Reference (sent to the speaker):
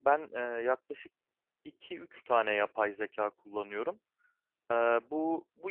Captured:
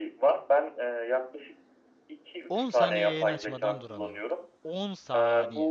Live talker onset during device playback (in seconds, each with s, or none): 2.5 s